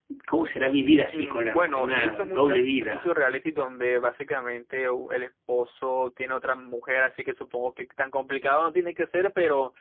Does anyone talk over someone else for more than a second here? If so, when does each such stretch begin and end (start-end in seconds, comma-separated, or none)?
1.1-3.1